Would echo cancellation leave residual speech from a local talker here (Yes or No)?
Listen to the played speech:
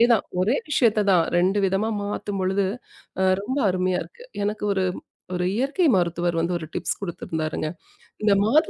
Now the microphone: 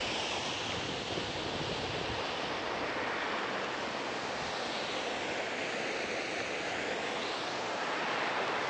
No